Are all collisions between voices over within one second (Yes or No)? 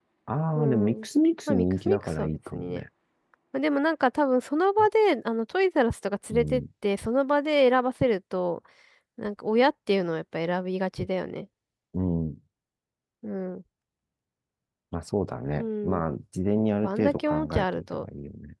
No